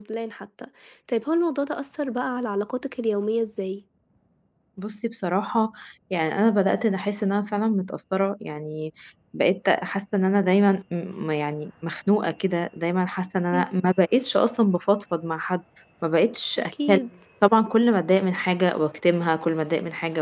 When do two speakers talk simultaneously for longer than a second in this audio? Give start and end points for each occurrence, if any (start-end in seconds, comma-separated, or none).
none